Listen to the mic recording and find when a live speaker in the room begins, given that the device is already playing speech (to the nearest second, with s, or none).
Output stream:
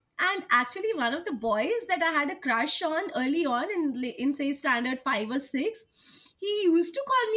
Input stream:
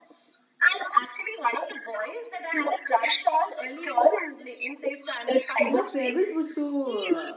6 s